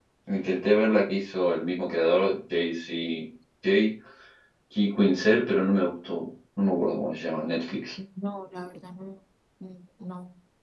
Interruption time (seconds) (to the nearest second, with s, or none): none